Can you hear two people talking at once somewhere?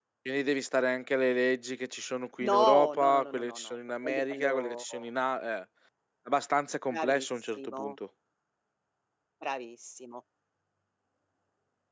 Yes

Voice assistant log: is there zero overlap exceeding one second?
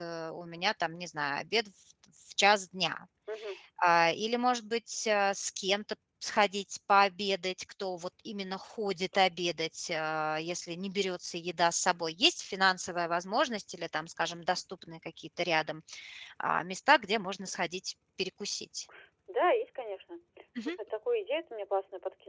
Yes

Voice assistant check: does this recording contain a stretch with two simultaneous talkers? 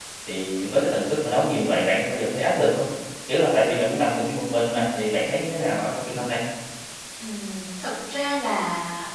No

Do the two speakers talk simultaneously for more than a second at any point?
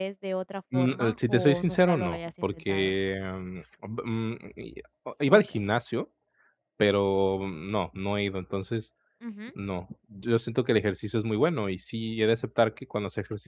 Yes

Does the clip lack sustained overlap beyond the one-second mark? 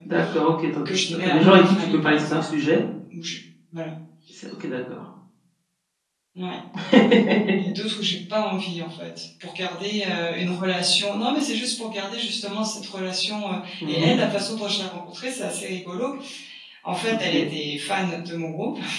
No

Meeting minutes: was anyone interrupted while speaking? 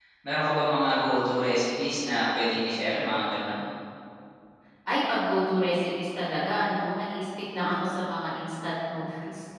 No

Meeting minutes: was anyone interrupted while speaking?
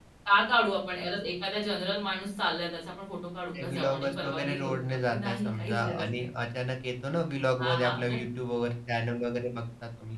Yes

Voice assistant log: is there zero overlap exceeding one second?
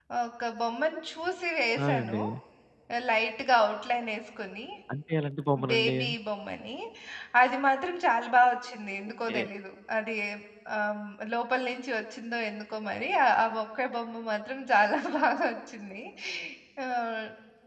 Yes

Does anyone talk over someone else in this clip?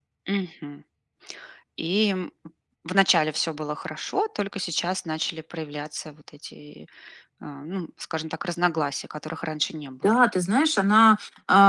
No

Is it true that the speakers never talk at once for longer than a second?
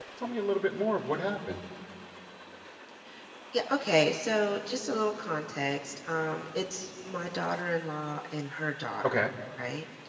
Yes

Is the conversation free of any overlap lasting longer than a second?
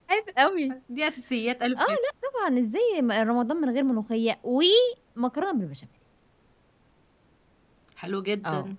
Yes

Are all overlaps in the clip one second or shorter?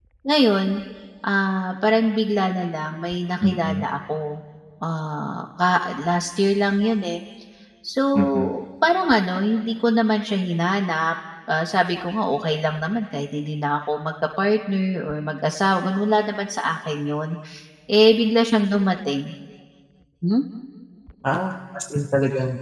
Yes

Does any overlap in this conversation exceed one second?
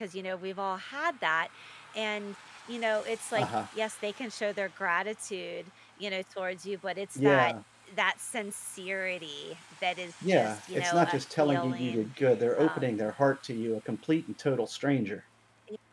Yes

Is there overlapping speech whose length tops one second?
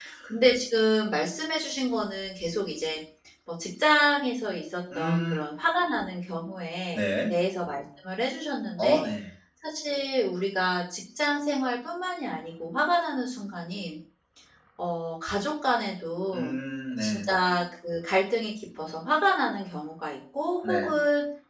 No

